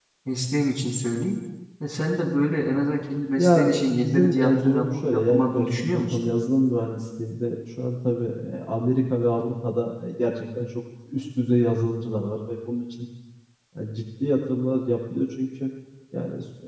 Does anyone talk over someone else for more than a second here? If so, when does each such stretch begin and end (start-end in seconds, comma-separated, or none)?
3.4-6.2